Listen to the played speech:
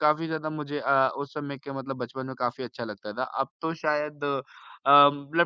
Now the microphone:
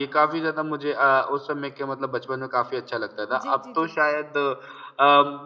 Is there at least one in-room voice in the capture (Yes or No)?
Yes